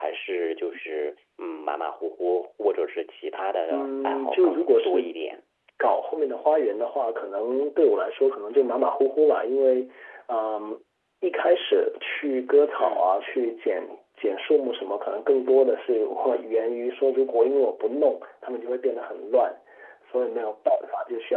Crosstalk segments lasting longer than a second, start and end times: 3.7-5.1

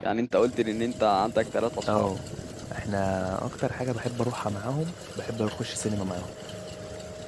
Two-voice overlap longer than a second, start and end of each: none

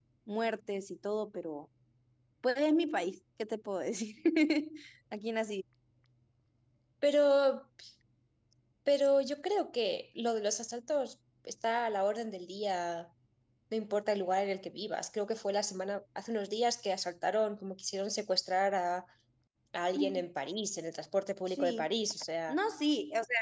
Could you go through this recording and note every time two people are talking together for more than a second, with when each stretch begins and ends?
none

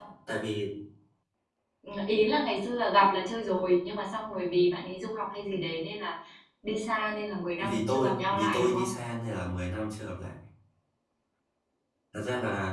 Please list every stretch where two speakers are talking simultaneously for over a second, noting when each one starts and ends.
7.6-8.9

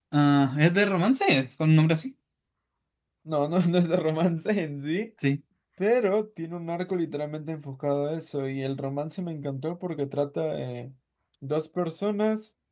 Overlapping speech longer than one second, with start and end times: none

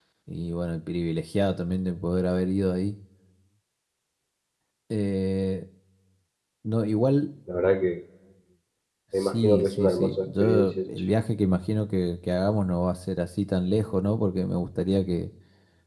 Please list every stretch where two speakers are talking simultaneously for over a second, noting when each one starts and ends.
9.2-10.8

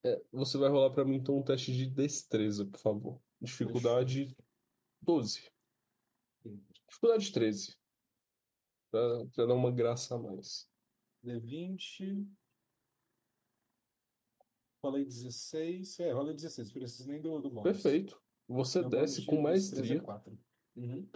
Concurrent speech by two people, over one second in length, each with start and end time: 18.8-20.1

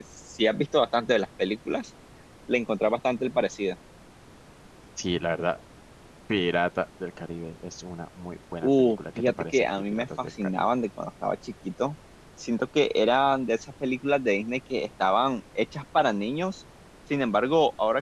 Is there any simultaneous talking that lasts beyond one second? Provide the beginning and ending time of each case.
8.6-10.7

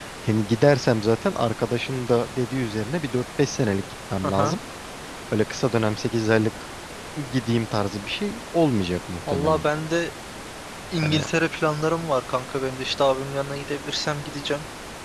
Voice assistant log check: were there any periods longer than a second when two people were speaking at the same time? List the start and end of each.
none

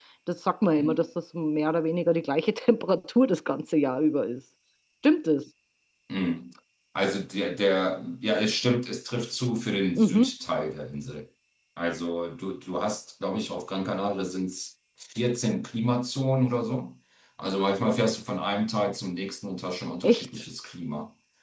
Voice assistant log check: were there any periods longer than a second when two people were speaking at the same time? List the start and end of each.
none

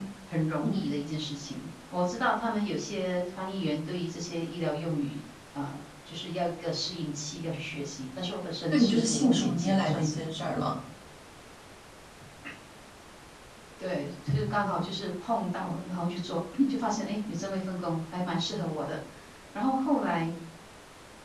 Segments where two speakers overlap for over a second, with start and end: 8.7-10.2

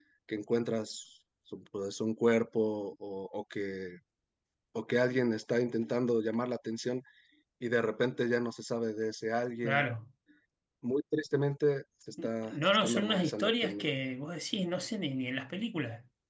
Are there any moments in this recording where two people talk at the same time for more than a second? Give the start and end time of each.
12.5-13.8

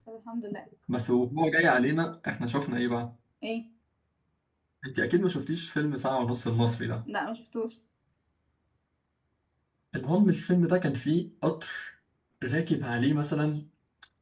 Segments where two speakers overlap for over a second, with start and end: none

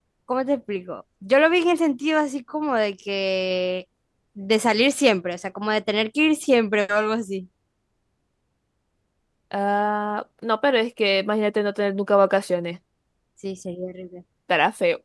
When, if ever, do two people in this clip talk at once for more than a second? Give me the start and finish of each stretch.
none

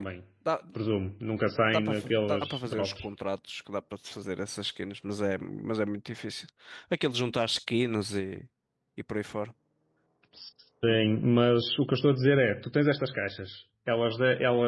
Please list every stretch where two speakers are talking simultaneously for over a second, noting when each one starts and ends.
1.7-3.1

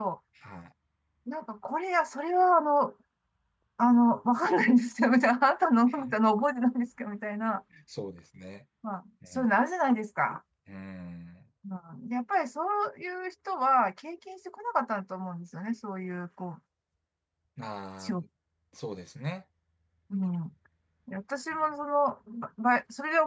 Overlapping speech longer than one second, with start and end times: none

